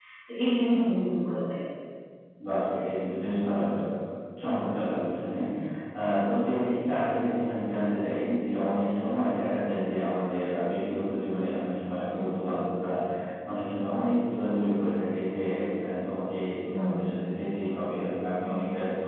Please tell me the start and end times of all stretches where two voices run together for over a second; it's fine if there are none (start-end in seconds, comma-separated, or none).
none